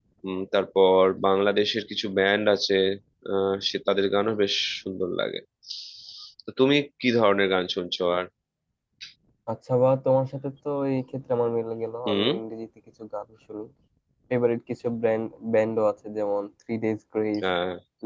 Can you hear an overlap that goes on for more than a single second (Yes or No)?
No